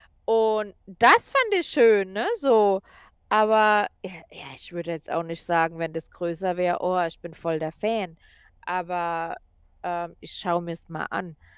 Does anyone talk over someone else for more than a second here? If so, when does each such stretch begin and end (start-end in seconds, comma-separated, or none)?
none